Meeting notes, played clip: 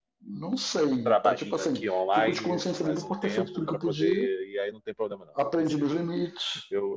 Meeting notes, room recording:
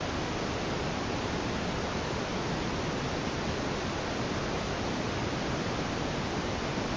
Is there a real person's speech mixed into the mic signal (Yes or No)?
No